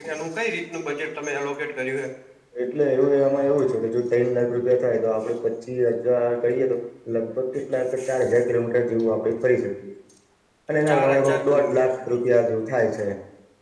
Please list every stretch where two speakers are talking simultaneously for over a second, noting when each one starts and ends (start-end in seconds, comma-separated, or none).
10.7-11.9